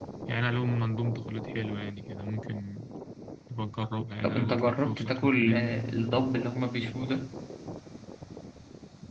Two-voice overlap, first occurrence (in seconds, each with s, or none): 4.2 s